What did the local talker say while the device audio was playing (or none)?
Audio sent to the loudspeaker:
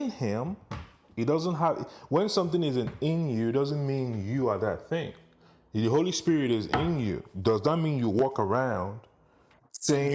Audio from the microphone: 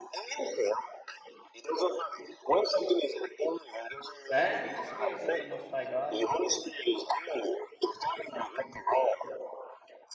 And the Spirit is the most high God.